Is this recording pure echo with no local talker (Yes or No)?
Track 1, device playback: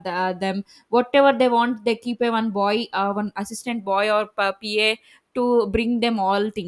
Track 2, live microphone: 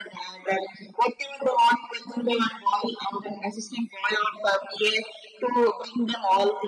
Yes